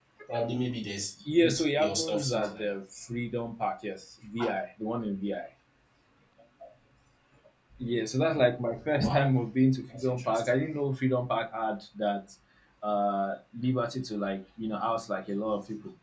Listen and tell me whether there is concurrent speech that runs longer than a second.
Yes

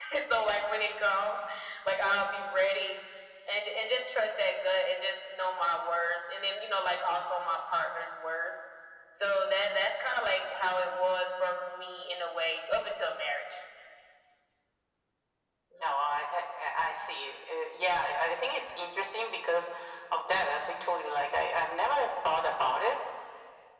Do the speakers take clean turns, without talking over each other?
Yes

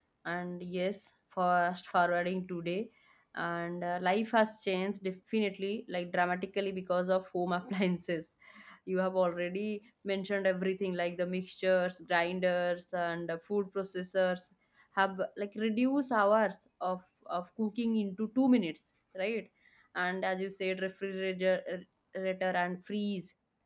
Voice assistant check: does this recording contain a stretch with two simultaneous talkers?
No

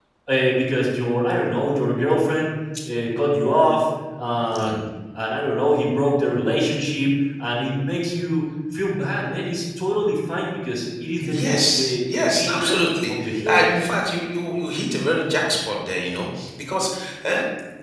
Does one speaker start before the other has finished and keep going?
Yes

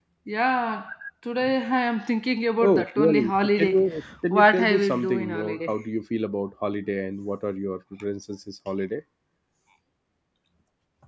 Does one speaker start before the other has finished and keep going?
Yes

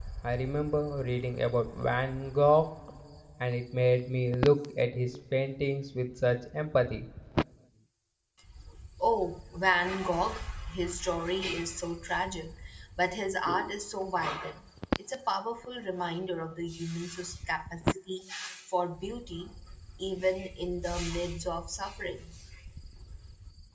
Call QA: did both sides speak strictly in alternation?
Yes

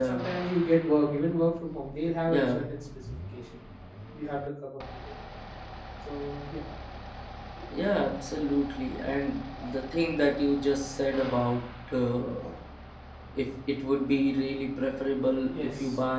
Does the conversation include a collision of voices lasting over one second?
No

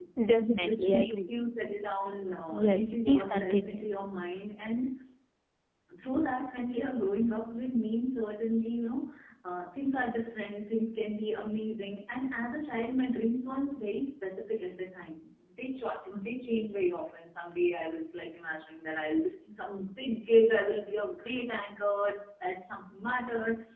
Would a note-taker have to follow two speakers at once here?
Yes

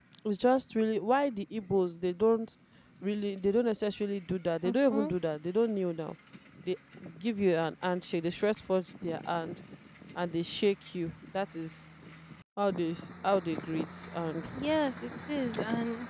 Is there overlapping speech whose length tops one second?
No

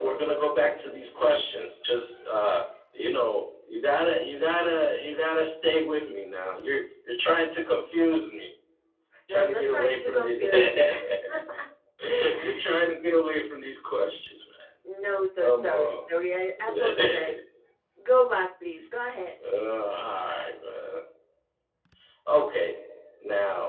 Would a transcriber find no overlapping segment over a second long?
No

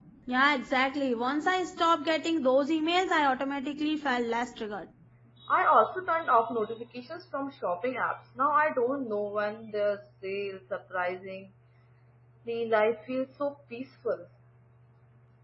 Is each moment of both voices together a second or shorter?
Yes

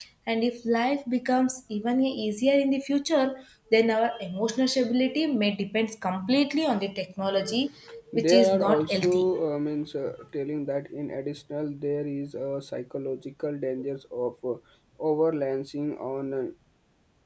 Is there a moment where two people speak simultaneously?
Yes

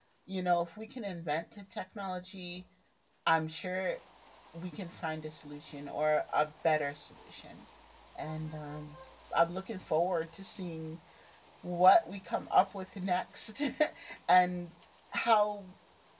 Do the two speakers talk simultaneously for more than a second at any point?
No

